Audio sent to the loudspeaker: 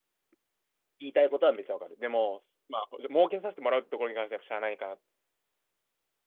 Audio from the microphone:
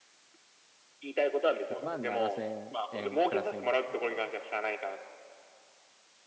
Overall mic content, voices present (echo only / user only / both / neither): both